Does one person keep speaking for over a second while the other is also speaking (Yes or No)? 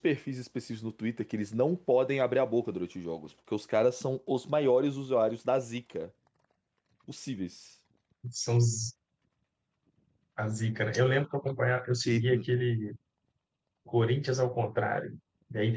No